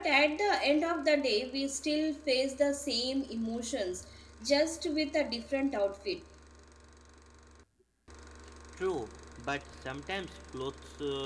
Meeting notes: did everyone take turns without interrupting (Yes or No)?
Yes